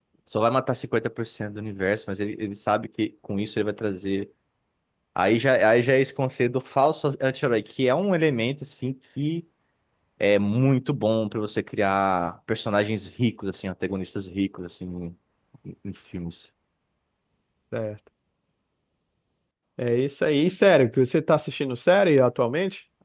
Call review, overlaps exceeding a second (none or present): none